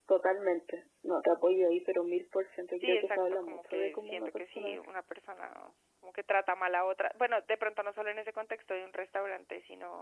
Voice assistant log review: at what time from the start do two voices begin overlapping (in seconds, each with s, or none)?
2.8 s